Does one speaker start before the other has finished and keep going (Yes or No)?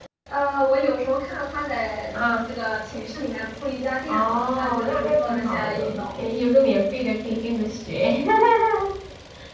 Yes